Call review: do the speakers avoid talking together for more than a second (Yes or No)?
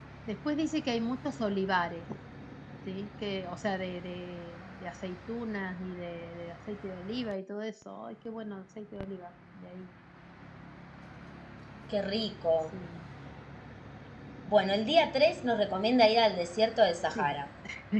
Yes